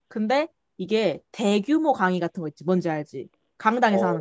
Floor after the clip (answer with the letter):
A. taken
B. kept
A